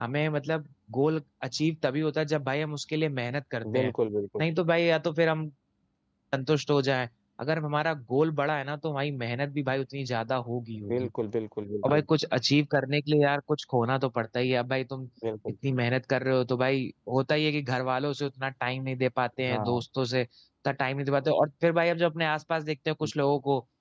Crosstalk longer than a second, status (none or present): none